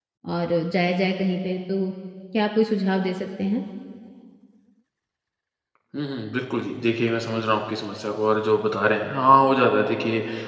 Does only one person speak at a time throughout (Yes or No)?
Yes